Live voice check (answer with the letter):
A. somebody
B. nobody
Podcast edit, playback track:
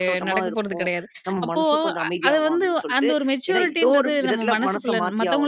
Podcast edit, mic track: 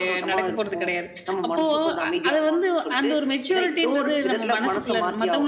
B